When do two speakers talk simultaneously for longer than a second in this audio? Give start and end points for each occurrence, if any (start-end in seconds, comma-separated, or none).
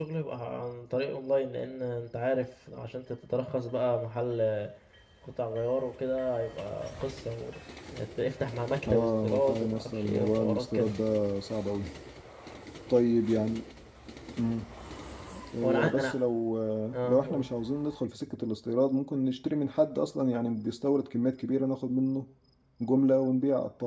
8.9-10.9